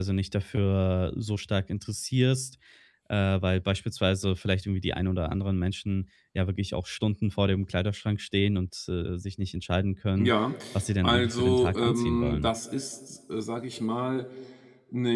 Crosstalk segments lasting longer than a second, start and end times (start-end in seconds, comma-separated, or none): 11.0-12.5